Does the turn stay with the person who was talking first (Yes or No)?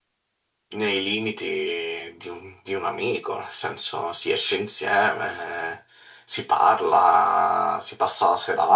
No